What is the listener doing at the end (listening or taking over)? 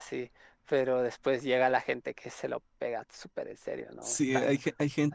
taking over